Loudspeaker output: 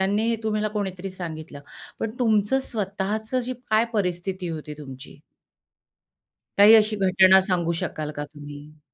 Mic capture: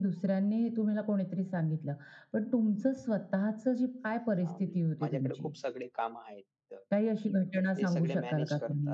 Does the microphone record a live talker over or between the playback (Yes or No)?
Yes